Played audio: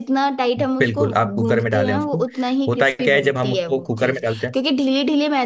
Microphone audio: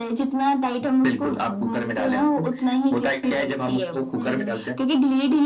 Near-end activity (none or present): present